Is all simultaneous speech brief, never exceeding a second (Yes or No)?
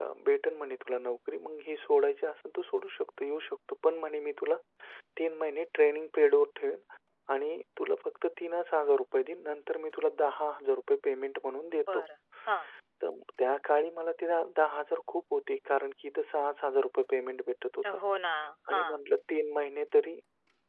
Yes